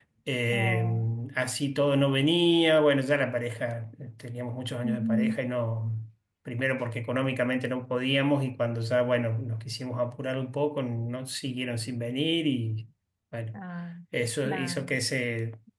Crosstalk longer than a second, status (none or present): none